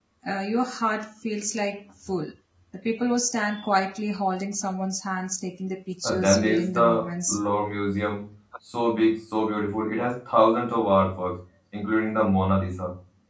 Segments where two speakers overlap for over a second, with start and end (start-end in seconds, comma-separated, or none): 6.0-7.4